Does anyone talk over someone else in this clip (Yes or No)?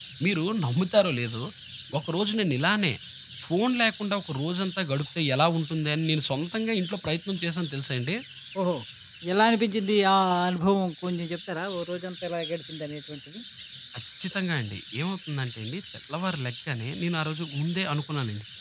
No